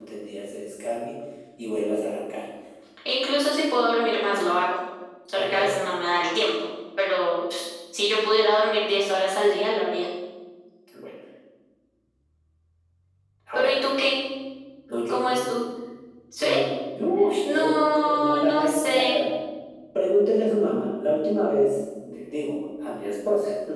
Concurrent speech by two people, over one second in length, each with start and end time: 17.4-19.1

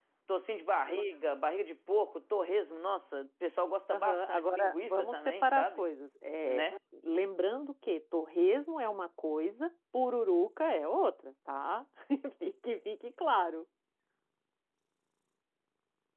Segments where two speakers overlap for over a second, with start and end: 3.9-5.8

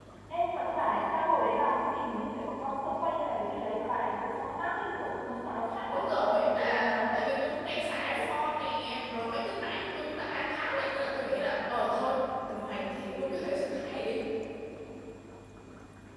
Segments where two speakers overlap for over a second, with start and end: 5.9-7.2

